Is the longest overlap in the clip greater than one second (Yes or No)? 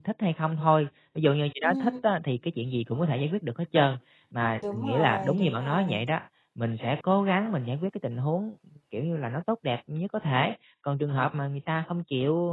Yes